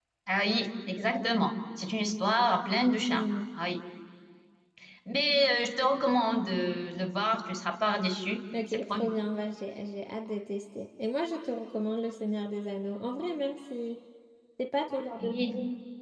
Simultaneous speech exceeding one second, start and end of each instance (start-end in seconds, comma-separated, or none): none